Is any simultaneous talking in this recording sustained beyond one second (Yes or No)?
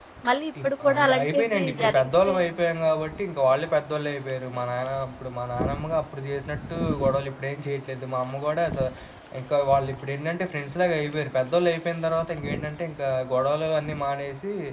Yes